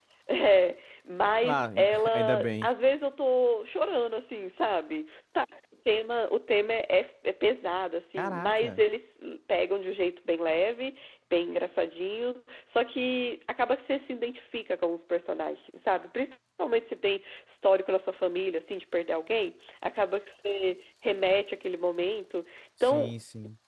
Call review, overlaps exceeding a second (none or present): present